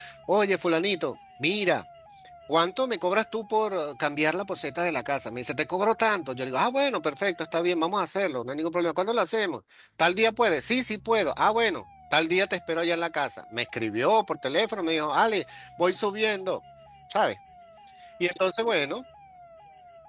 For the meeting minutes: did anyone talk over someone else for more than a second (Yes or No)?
No